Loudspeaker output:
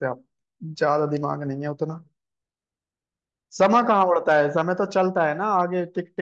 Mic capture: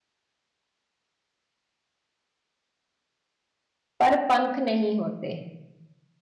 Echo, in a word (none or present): none